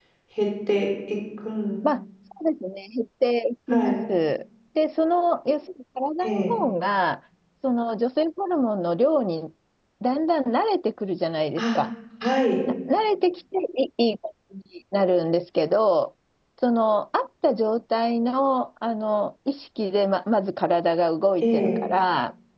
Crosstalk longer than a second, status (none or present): none